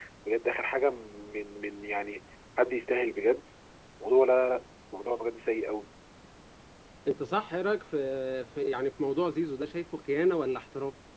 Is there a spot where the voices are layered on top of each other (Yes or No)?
No